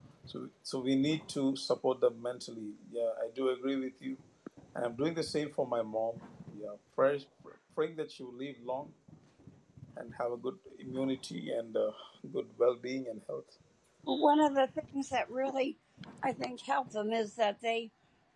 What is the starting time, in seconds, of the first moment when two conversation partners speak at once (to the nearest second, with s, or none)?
none